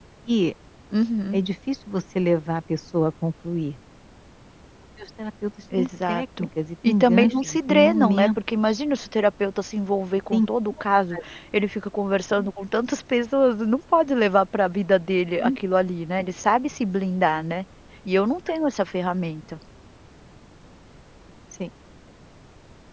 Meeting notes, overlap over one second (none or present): present